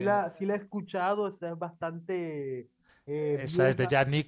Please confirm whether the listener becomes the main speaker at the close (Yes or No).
Yes